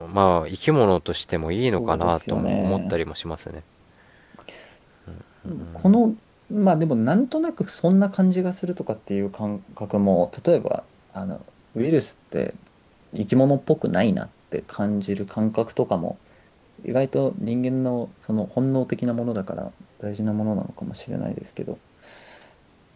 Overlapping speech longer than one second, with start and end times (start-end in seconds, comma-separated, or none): 1.7-3.0